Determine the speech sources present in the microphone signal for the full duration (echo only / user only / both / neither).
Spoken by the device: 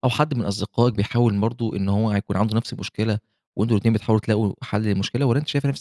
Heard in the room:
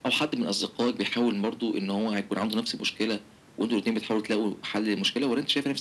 echo only